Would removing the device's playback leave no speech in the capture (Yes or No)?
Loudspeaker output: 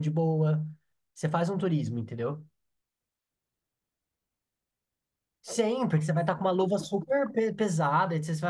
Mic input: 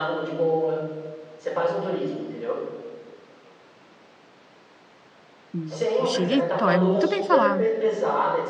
No